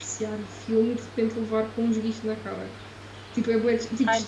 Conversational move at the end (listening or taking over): taking over